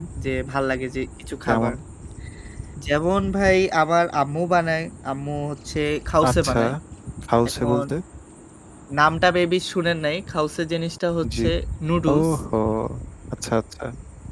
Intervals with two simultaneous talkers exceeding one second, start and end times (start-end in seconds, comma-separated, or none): none